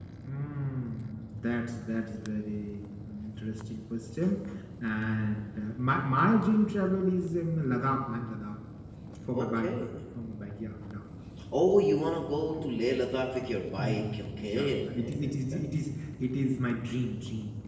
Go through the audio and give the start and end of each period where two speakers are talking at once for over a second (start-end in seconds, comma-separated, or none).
13.8-15.6